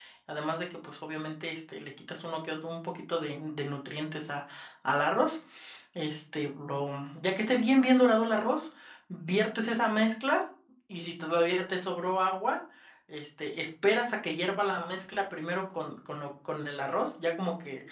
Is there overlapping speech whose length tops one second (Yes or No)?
No